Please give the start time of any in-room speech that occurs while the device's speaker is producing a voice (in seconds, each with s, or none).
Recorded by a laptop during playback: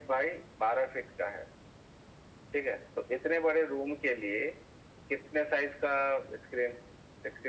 none